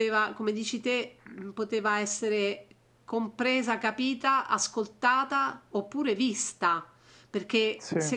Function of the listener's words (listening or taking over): listening